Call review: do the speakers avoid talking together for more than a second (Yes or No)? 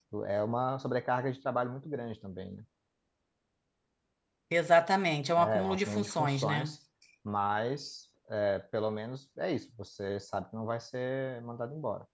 No